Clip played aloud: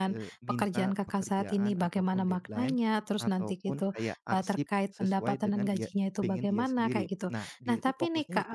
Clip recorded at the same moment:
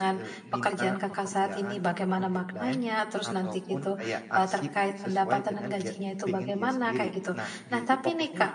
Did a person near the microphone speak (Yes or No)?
No